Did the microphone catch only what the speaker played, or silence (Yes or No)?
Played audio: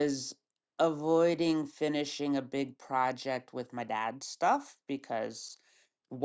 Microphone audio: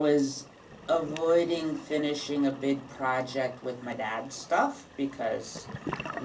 Yes